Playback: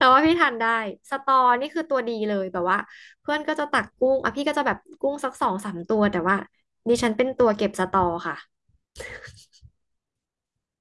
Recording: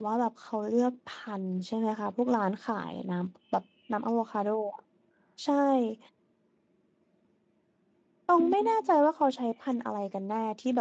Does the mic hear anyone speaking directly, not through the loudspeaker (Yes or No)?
Yes